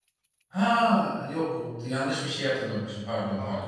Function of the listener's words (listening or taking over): taking over